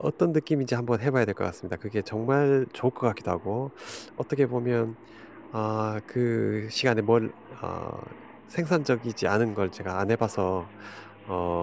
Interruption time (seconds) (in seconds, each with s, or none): none